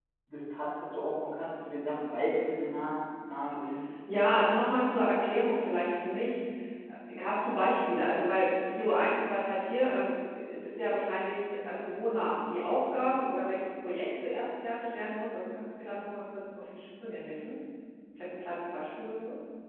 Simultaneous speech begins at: none

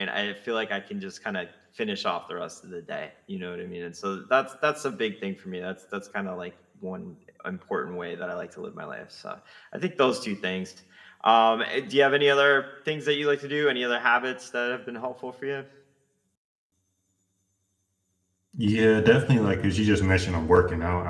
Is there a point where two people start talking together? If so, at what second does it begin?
none

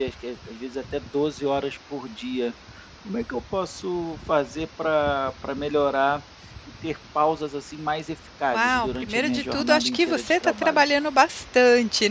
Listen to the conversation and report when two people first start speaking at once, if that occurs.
9 s

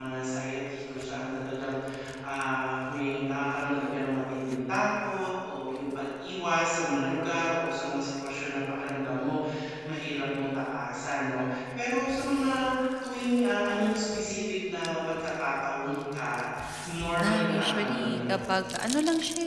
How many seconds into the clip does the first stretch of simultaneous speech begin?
17 s

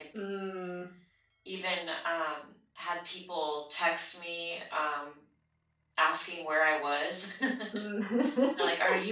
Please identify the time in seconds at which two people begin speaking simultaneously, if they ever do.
none

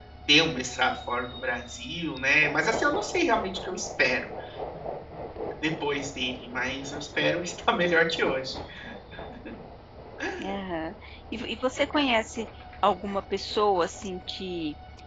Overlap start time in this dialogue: none

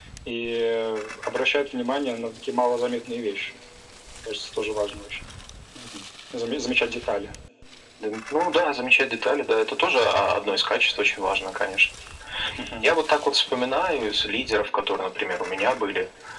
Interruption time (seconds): none

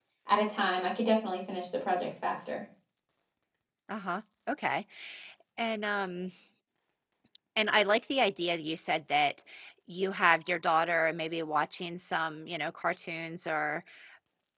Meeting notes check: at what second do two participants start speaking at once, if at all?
none

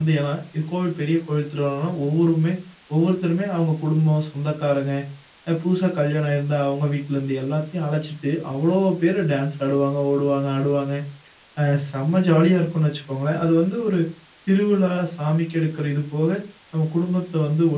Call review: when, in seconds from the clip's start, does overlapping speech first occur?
none

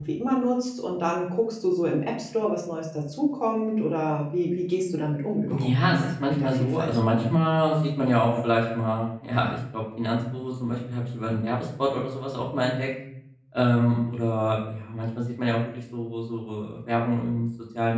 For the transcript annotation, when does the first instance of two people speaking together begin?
5 s

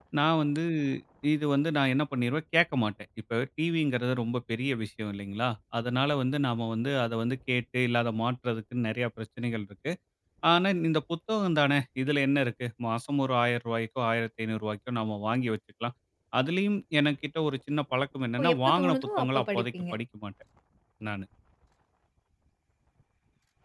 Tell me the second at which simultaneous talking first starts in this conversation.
18 s

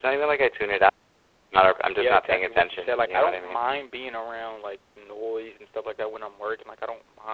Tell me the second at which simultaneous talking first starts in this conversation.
2 s

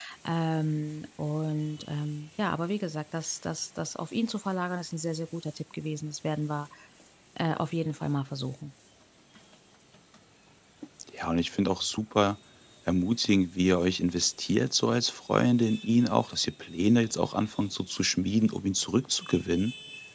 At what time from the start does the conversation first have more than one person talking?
none

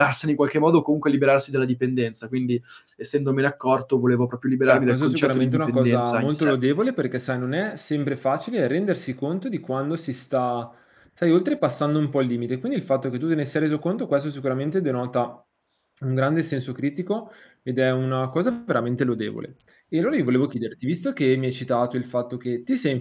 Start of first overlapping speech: 5 s

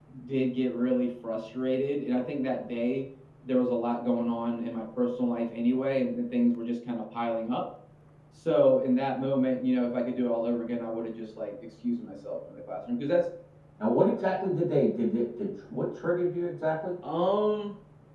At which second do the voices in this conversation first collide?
none

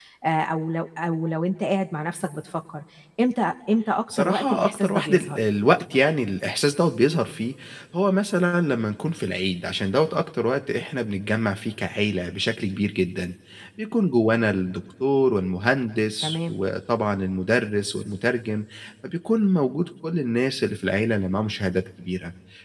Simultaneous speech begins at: 4 s

